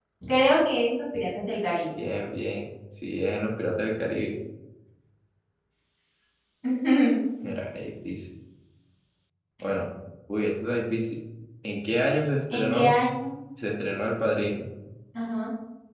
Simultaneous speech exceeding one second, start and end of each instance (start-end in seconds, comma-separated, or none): none